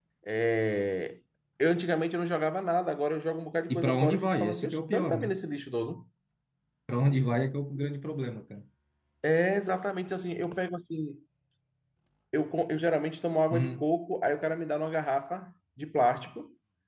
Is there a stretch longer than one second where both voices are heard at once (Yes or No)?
Yes